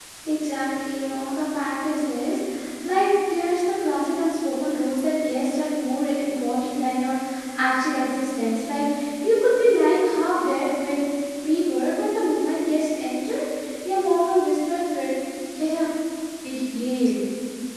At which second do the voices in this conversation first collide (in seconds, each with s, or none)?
none